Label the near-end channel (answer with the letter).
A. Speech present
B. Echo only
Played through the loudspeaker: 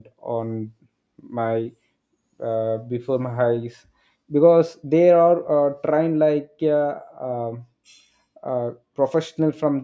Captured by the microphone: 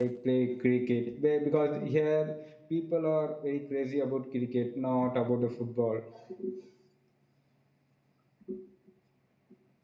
A